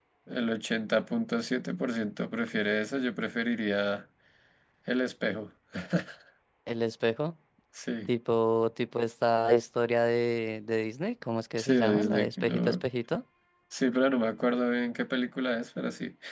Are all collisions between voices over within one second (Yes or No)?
No